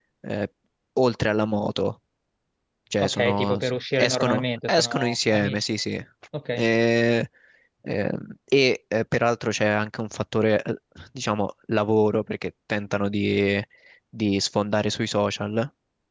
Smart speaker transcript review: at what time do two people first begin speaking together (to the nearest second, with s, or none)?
3 s